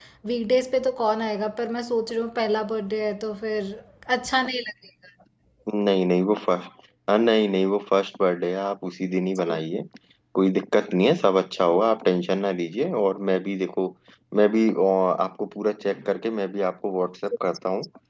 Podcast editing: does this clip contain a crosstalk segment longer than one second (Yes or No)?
No